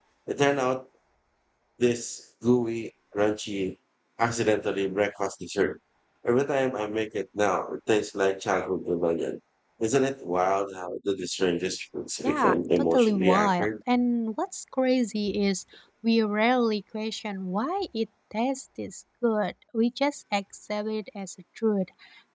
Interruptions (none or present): present